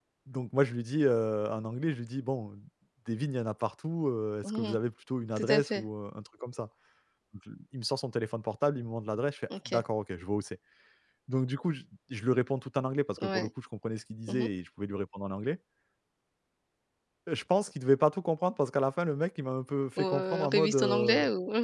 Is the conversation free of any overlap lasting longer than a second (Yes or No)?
No